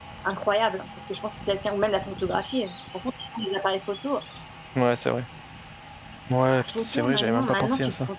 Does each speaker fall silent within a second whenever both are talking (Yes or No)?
No